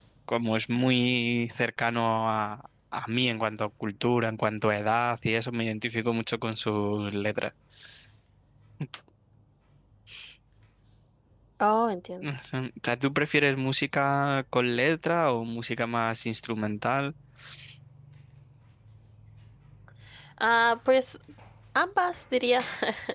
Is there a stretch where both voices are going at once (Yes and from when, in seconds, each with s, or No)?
No